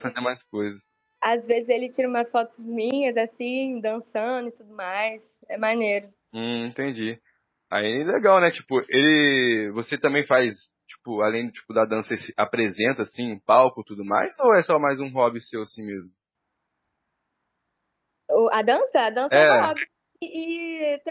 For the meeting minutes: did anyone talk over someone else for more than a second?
No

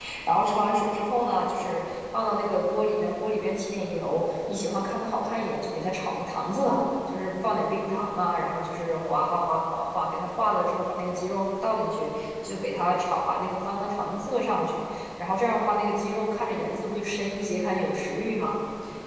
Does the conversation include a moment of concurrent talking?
No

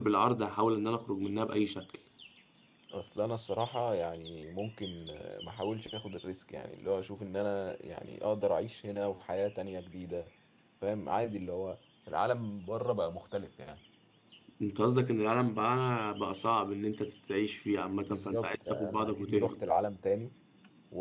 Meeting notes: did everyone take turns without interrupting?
No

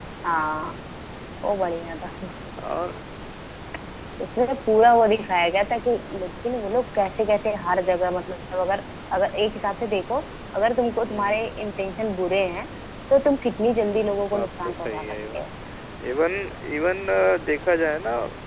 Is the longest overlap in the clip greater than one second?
Yes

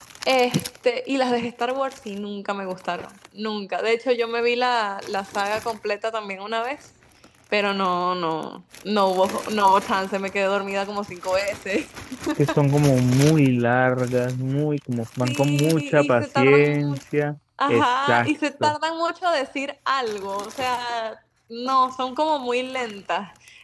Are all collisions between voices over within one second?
No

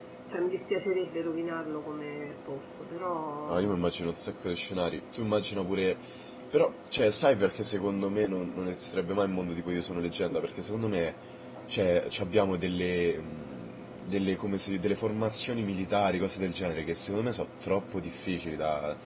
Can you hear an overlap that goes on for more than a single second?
No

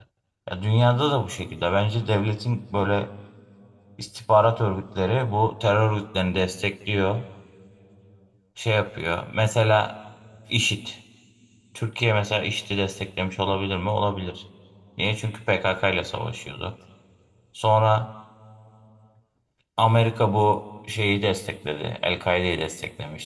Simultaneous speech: No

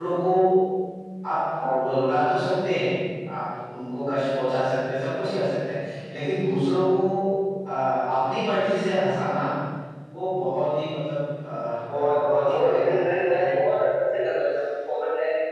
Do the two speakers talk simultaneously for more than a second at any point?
Yes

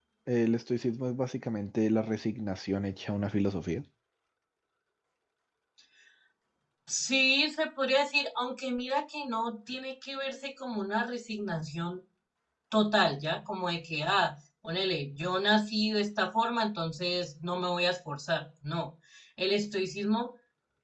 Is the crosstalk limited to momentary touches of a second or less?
Yes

